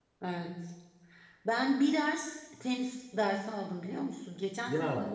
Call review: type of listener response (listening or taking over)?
listening